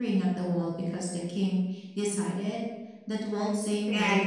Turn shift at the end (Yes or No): Yes